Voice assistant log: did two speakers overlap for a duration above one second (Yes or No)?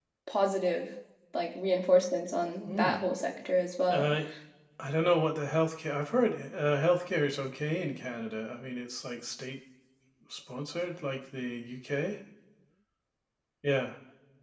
No